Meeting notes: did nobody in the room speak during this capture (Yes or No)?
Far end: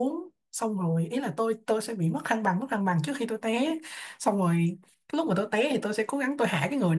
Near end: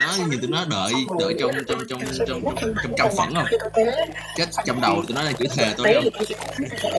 No